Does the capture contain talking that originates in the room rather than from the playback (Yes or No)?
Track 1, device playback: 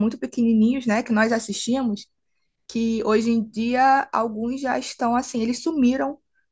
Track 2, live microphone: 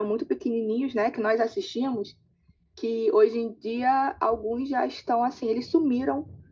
No